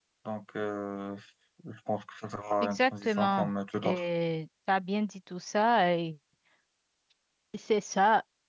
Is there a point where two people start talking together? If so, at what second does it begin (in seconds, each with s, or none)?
2.6 s